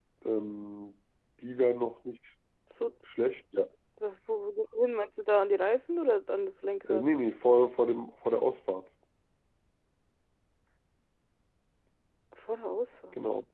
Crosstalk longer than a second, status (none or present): none